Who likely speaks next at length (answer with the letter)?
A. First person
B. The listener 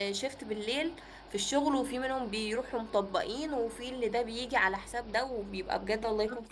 B